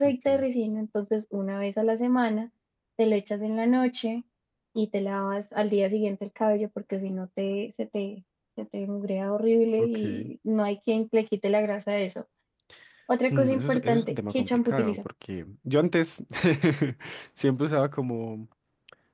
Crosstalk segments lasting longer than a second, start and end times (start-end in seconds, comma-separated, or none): 13.3-15.0